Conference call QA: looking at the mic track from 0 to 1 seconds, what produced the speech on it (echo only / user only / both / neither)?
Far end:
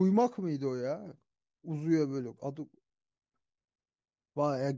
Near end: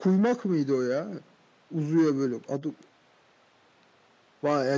echo only